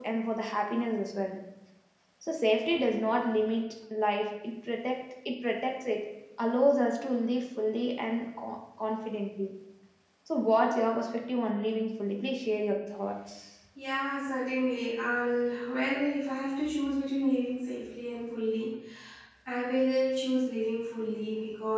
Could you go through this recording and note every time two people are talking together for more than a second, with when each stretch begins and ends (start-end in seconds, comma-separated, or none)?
none